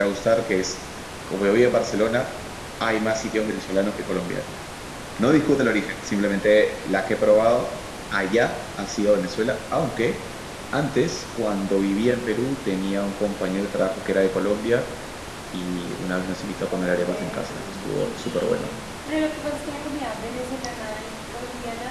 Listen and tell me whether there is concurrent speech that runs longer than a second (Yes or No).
Yes